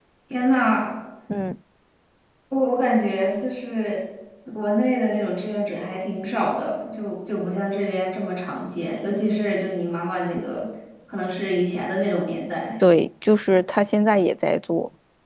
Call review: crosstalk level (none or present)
none